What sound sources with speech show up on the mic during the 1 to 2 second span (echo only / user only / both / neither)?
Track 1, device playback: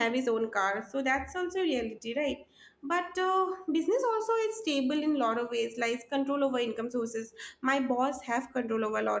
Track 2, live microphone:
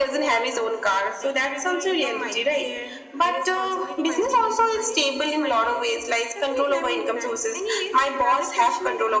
both